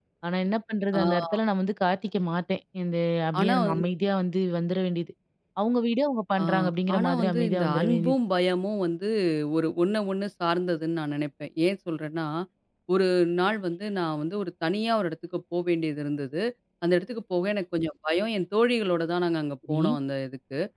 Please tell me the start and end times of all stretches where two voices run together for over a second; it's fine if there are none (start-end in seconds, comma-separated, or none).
7.0-8.2